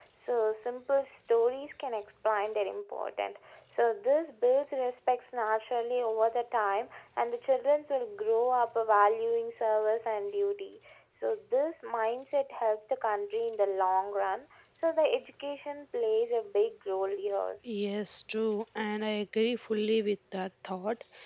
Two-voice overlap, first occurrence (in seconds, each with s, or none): none